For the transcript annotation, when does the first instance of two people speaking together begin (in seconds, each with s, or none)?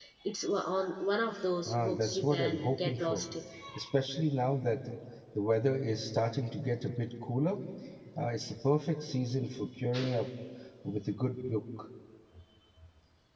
1.7 s